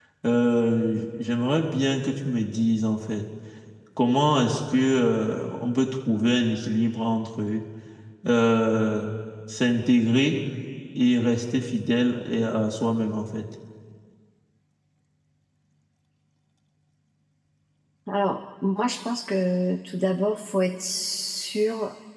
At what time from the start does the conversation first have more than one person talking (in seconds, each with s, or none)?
none